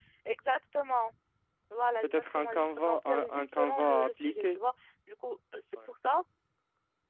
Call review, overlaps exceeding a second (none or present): present